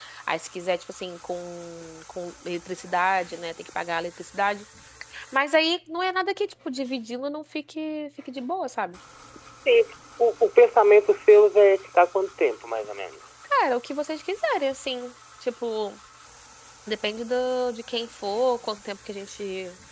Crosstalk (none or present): none